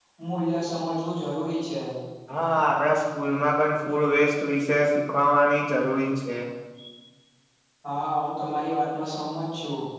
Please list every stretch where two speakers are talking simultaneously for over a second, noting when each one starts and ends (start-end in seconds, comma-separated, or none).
none